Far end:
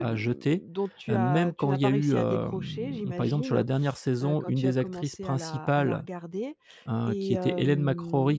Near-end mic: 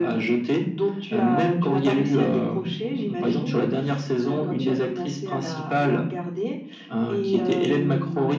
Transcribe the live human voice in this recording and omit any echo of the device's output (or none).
none